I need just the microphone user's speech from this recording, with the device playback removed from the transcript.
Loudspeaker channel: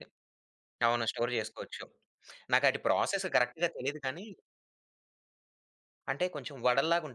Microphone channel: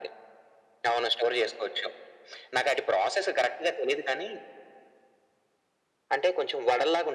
none

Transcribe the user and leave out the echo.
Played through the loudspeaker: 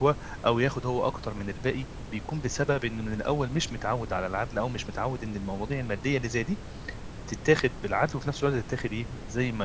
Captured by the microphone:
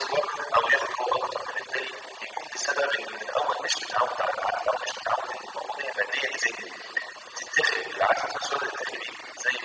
none

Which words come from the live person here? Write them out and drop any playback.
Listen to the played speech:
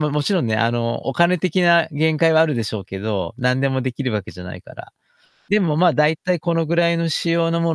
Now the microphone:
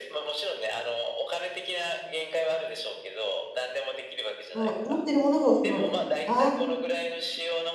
あ、持ってるものが収まる。あ

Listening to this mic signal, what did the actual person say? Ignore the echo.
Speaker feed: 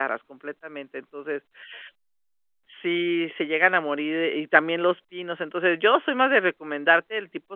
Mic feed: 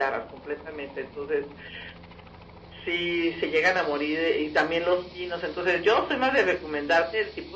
none

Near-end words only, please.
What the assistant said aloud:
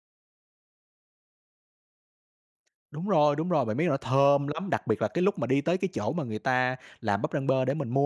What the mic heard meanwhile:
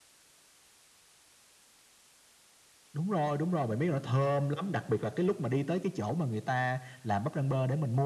none

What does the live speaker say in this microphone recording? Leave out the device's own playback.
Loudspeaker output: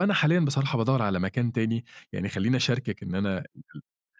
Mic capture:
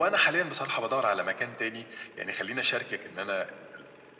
none

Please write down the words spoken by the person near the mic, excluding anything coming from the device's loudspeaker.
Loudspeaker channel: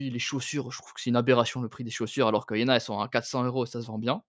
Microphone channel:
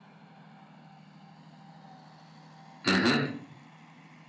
Mmh mh.

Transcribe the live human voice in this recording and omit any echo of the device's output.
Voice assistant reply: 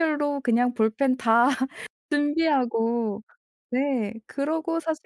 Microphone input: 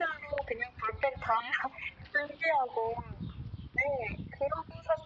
none

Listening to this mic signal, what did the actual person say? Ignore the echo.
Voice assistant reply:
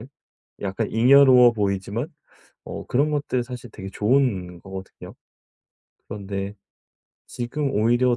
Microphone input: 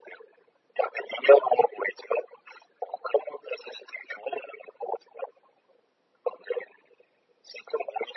none

